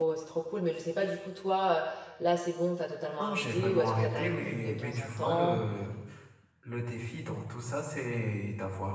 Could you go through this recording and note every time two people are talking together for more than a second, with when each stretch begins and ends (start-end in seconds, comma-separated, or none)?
3.2-5.6